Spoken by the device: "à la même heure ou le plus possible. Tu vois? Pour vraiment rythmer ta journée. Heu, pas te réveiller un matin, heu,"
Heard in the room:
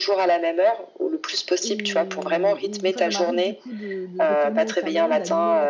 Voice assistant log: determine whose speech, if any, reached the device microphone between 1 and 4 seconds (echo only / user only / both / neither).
both